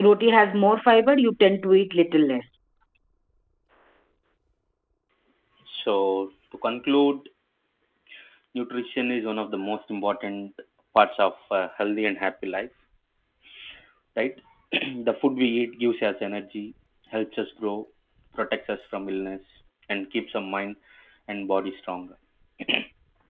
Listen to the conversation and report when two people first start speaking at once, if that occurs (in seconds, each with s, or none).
none